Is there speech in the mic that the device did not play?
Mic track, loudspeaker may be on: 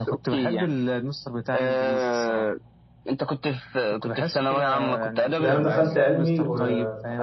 Yes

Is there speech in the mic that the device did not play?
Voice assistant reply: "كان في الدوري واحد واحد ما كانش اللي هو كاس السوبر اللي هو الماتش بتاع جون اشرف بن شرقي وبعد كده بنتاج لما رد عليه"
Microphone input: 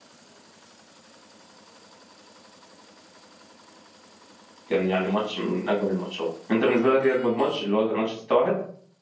Yes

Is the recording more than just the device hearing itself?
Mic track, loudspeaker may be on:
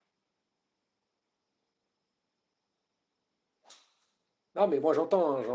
Yes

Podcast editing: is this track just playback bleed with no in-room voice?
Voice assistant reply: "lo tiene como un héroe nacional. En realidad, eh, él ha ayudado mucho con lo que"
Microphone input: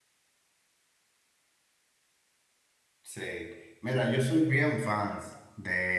No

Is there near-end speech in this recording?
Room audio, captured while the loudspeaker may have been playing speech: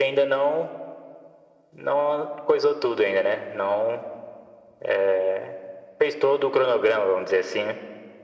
No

